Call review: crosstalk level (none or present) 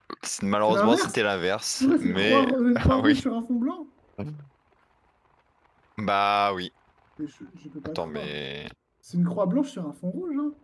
present